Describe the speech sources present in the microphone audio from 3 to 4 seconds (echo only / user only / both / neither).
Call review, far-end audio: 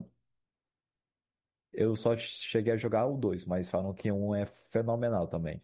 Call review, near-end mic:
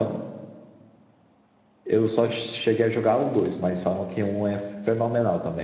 echo only